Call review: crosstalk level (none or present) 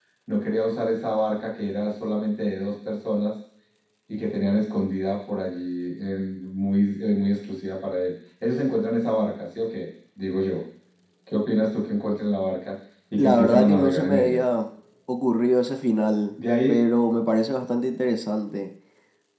present